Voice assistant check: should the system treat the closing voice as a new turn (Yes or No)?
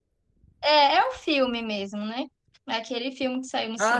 Yes